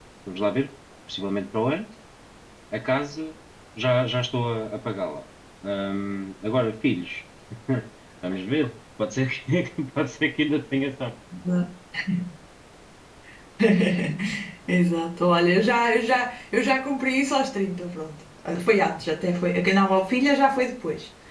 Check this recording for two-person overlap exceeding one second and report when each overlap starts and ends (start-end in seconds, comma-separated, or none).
none